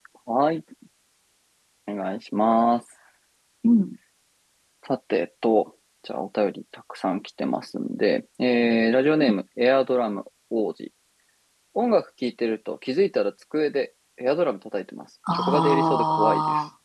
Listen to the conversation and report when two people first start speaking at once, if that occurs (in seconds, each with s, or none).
15.3 s